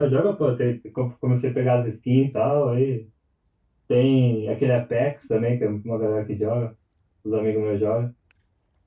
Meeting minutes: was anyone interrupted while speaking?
No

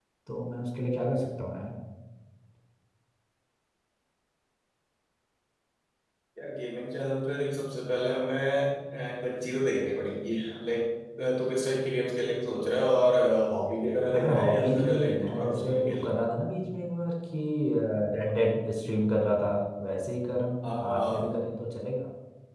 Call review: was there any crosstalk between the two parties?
Yes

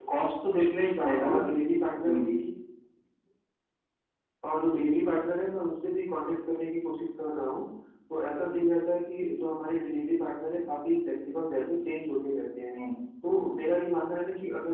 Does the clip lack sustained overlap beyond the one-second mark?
Yes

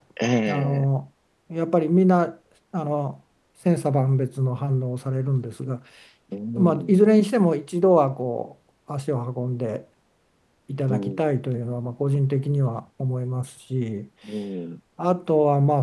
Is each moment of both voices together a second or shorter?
Yes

